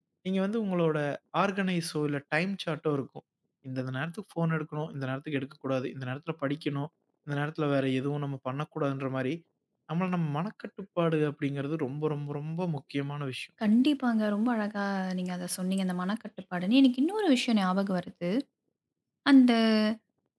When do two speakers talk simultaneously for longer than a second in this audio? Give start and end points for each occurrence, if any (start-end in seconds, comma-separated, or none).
none